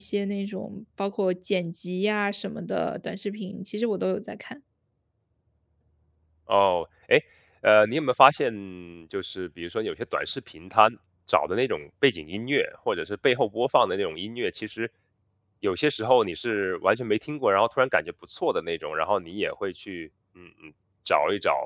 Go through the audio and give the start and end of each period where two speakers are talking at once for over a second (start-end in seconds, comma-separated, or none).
none